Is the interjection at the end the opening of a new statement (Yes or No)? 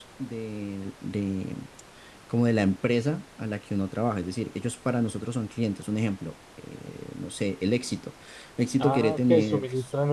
Yes